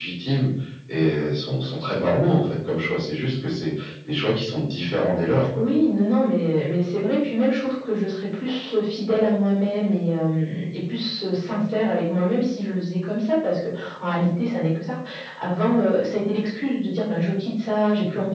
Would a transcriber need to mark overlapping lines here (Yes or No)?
No